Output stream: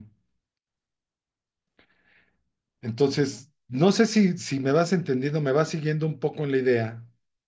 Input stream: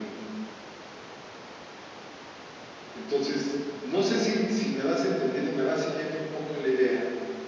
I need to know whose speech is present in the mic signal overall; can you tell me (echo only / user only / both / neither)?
echo only